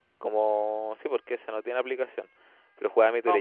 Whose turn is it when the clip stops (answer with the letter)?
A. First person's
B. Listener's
A